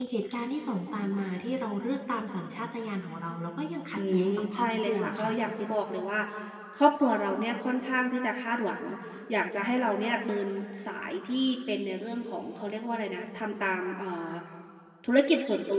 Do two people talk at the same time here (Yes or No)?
Yes